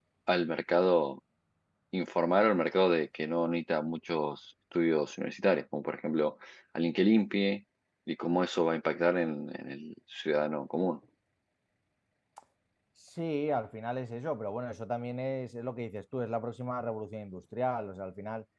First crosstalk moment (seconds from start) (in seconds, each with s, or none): none